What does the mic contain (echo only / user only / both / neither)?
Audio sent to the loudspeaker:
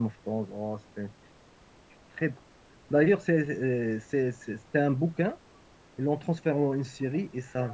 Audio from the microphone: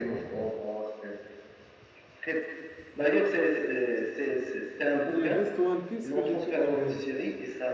both